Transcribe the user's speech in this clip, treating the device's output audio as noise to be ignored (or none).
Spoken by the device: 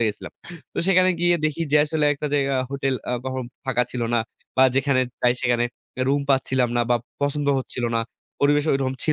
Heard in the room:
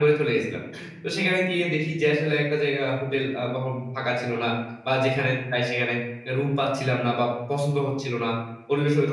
none